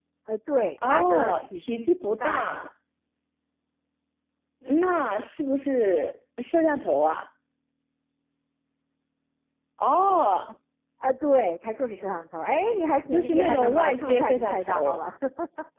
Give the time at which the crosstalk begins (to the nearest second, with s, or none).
1 s